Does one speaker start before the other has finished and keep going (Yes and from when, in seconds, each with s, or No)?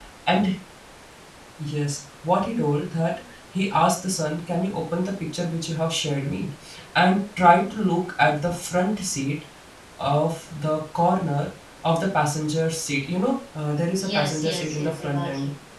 Yes, from 14.0 s